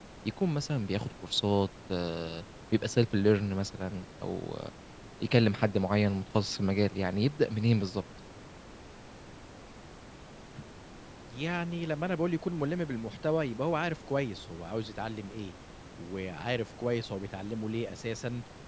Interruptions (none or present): none